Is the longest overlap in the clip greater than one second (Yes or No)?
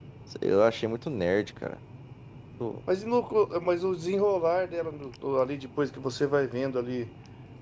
No